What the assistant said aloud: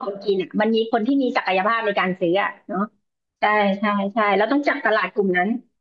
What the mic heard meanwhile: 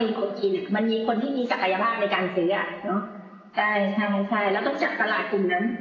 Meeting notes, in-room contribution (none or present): none